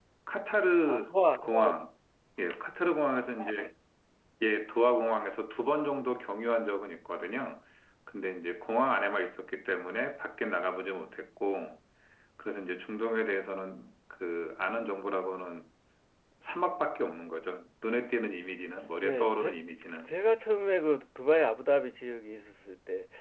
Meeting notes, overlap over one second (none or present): none